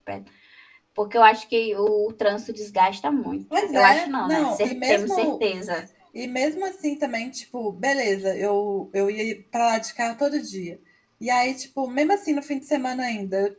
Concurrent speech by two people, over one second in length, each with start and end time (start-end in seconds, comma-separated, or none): 3.7-5.3